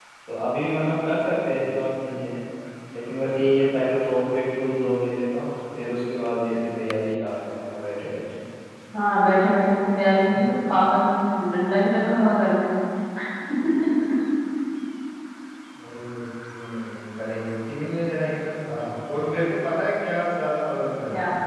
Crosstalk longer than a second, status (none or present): none